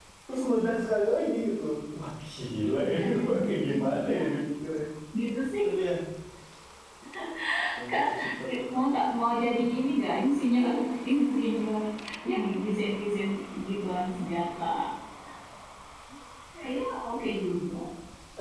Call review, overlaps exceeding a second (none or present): present